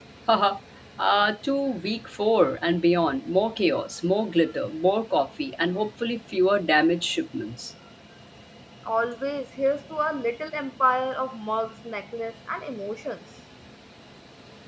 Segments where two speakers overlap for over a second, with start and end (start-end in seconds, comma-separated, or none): none